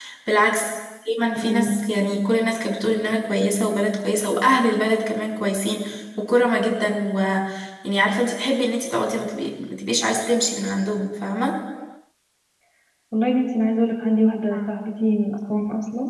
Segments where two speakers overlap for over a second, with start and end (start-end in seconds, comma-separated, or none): none